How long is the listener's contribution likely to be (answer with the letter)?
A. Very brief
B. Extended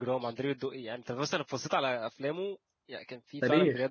B